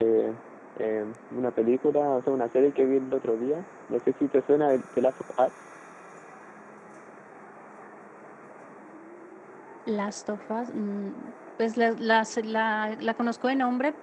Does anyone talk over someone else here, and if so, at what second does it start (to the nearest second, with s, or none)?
none